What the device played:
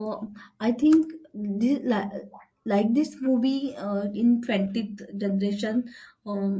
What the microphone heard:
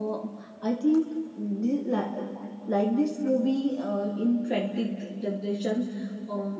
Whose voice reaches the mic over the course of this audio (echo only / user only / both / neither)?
echo only